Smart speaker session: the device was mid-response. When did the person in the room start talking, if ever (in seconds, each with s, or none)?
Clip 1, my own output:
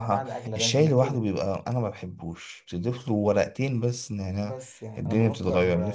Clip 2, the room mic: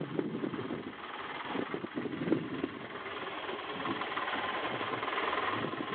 none